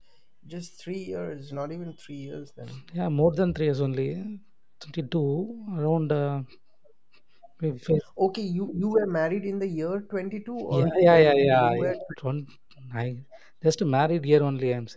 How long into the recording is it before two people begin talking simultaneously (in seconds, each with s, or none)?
10.7 s